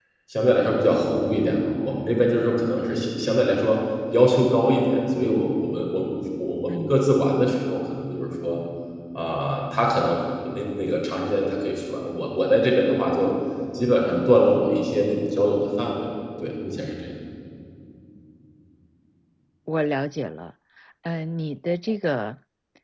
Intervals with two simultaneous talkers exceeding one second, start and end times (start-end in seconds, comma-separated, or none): none